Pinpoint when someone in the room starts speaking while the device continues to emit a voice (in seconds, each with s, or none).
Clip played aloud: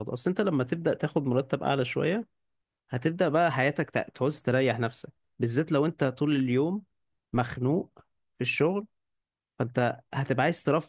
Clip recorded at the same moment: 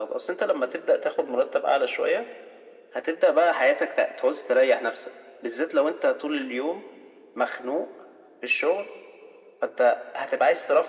none